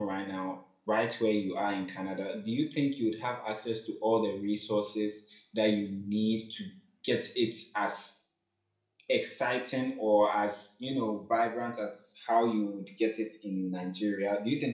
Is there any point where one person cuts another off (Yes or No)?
No